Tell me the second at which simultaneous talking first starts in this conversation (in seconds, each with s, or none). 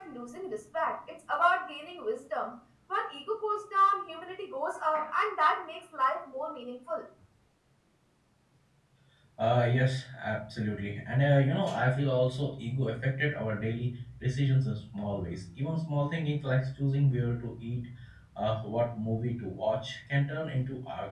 none